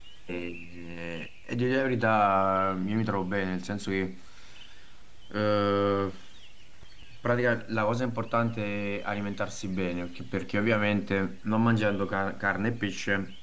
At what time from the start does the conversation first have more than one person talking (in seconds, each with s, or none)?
none